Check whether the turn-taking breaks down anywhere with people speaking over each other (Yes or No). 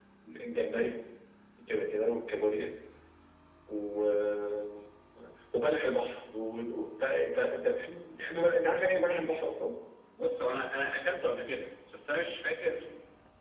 No